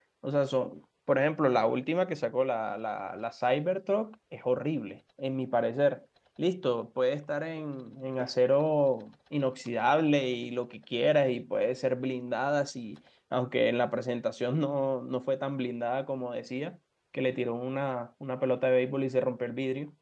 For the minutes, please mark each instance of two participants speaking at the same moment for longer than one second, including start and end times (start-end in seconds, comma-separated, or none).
none